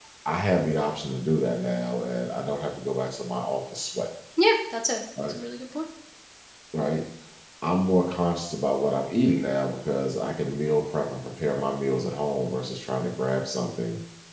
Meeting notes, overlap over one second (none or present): none